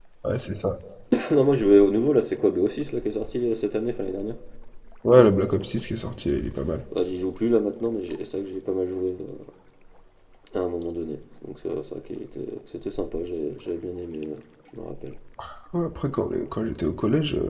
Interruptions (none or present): none